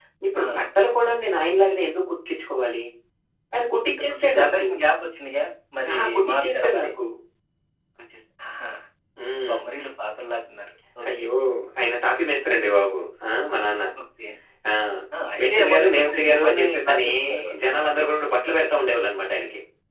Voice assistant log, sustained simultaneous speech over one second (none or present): present